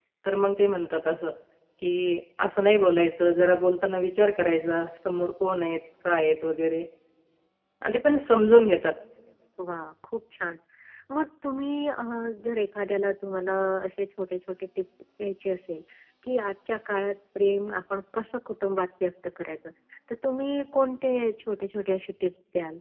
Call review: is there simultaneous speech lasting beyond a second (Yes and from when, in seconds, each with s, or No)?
No